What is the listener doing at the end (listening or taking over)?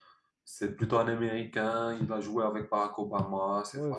taking over